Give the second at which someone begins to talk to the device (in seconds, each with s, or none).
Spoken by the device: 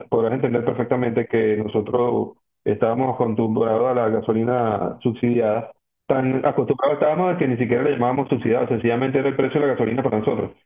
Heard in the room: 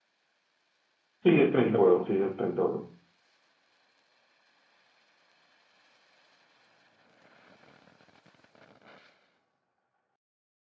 1.2 s